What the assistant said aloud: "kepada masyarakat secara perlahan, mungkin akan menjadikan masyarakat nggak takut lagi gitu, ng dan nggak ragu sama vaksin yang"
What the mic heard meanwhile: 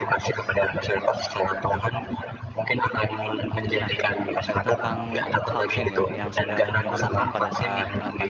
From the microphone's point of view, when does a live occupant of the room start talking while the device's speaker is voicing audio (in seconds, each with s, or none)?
3.8 s